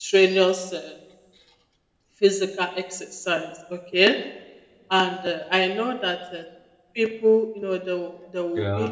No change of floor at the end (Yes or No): Yes